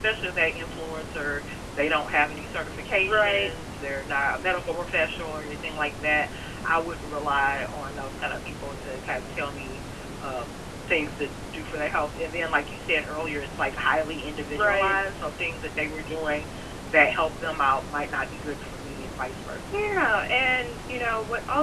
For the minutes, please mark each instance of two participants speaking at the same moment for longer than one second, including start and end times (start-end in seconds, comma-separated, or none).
none